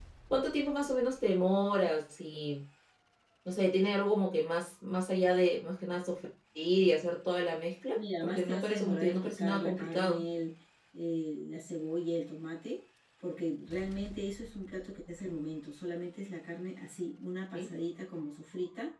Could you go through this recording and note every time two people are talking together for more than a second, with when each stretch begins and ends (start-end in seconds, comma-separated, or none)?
8.0-10.2